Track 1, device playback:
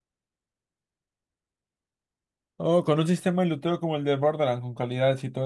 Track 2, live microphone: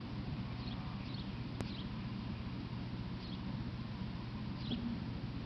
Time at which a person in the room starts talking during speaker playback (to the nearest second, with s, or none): none